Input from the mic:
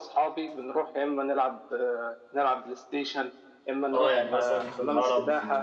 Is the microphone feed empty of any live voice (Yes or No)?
No